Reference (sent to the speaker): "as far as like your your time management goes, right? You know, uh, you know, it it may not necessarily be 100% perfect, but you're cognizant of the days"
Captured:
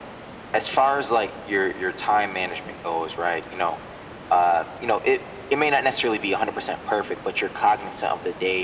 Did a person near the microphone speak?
No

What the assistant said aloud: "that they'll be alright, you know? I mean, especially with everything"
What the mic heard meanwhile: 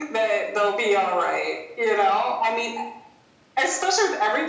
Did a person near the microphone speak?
No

